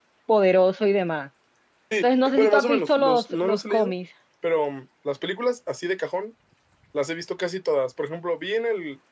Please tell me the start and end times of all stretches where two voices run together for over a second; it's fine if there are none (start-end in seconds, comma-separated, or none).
2.0-3.9